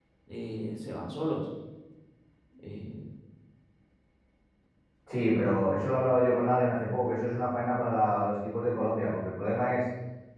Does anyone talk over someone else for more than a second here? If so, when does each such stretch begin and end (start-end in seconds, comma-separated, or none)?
none